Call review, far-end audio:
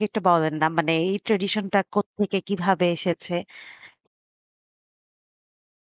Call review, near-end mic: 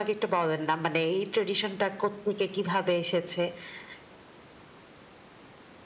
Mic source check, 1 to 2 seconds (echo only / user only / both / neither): echo only